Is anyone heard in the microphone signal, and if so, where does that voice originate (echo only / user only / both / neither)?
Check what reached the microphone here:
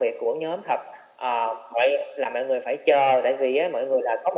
echo only